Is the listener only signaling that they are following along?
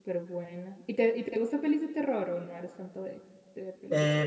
No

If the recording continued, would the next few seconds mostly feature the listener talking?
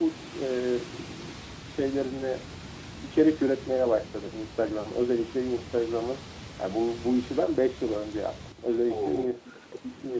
No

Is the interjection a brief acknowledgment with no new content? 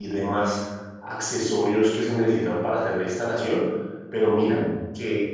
Yes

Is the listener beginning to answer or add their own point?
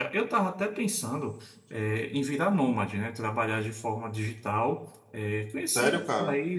No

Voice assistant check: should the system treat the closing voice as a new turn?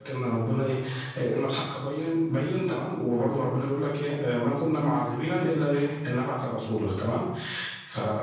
No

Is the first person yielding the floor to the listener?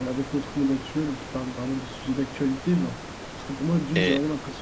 No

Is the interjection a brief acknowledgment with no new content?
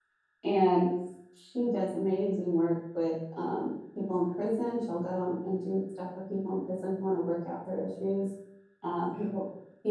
Yes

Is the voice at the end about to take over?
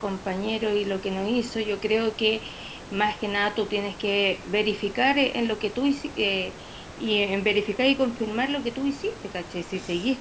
No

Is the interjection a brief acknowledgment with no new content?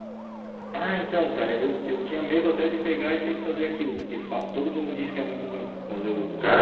No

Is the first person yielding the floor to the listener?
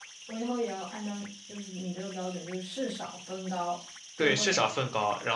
Yes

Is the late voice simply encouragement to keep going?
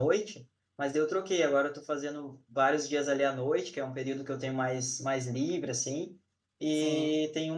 Yes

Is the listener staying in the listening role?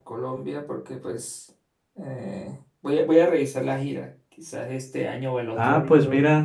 No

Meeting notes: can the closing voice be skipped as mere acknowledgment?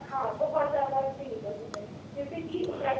Yes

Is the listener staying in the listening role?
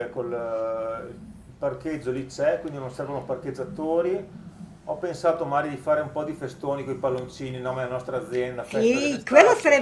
No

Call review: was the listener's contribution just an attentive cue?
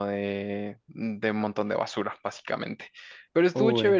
Yes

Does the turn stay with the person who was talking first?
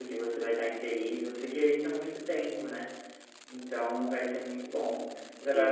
Yes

